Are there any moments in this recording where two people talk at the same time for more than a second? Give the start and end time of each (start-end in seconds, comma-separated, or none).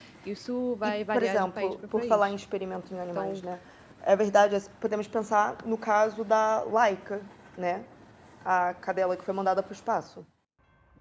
0.8-2.3